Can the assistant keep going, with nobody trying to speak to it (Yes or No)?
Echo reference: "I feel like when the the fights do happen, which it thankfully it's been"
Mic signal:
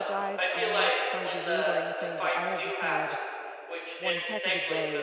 No